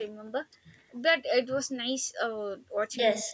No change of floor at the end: No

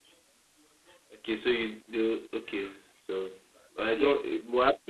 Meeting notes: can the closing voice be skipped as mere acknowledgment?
Yes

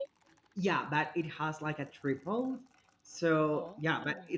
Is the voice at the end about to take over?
No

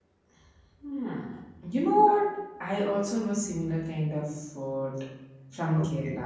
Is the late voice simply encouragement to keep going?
No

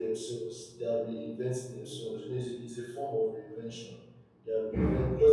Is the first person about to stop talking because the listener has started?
No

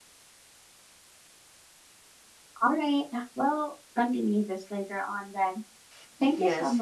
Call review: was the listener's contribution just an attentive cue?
No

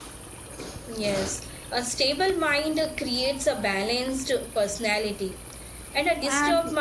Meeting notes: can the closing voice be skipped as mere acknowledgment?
Yes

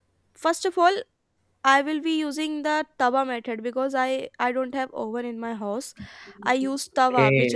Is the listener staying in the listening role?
Yes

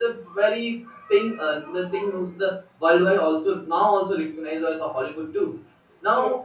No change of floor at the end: Yes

